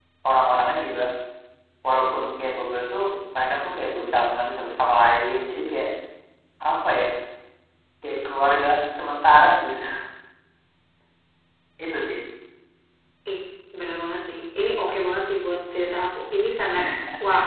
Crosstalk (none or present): none